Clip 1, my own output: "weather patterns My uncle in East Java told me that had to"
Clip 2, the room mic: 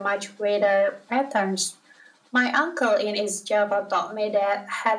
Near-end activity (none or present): none